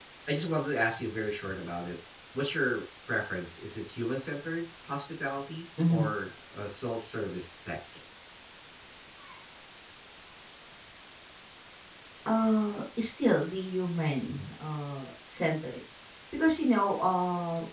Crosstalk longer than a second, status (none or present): none